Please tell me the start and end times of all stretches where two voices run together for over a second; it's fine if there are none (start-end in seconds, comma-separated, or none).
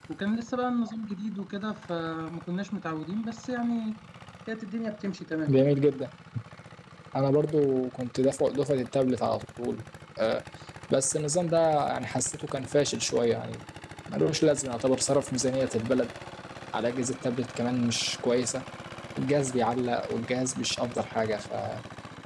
none